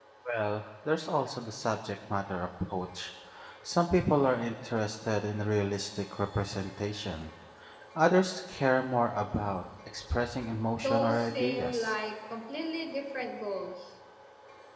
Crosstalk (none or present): present